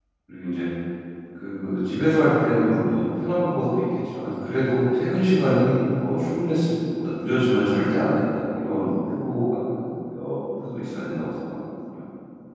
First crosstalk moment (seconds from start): none

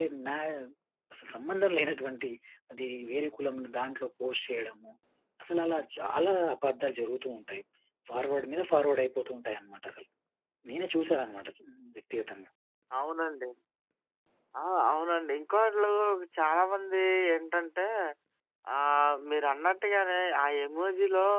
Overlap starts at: none

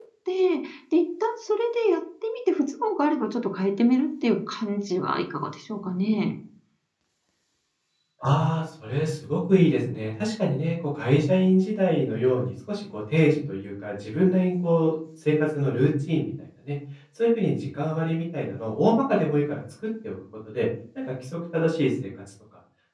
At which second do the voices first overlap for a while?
none

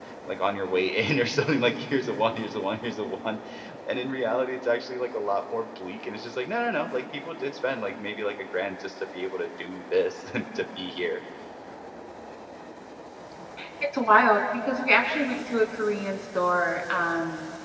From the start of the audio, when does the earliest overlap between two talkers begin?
none

